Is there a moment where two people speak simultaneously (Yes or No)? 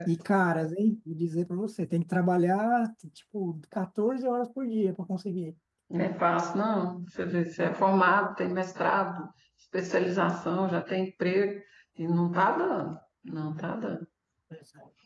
No